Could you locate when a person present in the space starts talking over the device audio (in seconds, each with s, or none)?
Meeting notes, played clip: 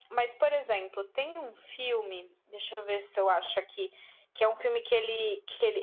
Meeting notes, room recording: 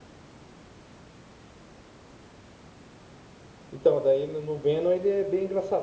3.7 s